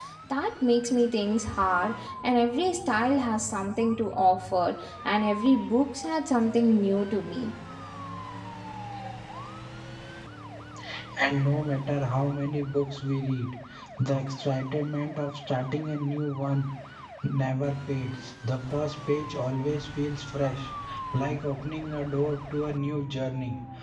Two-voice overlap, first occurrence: none

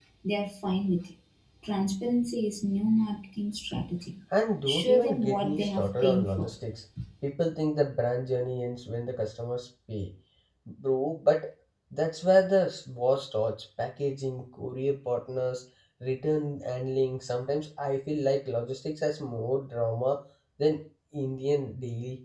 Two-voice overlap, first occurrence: 4.7 s

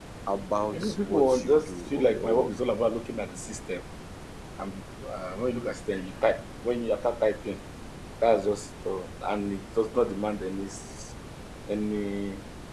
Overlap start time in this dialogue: 0.7 s

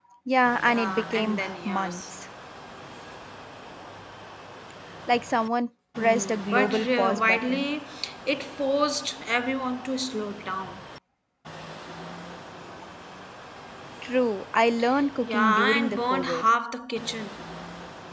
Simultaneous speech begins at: 0.6 s

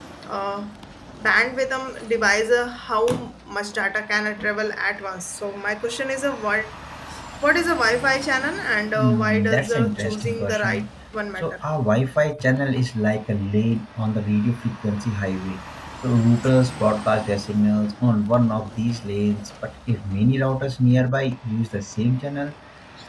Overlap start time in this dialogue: 9.0 s

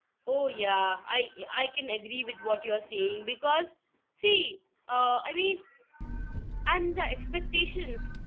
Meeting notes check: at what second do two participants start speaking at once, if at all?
none

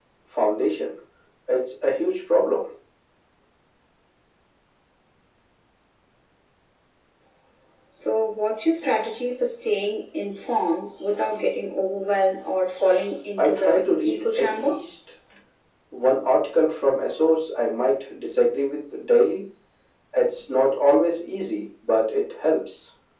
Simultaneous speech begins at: 13.4 s

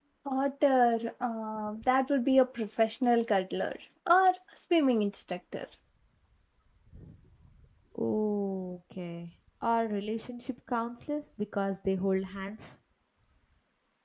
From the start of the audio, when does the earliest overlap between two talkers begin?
none

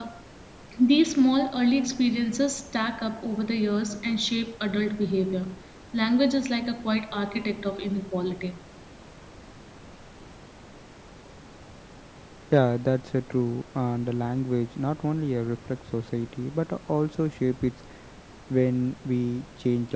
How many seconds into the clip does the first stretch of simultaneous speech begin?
none

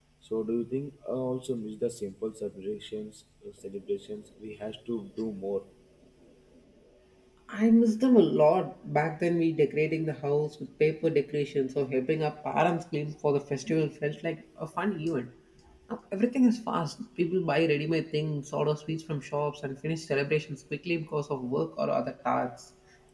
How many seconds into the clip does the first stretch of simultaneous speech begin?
none

